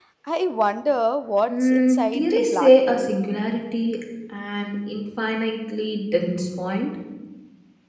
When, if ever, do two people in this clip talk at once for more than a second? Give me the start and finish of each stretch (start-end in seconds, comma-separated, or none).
1.5-3.1